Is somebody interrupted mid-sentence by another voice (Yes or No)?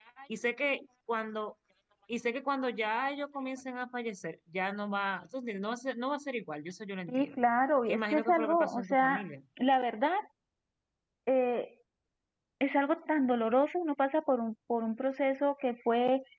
Yes